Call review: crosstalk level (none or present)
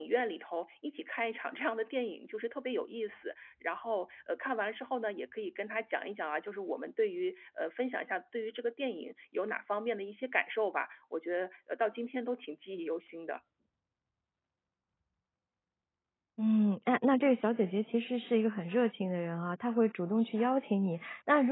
none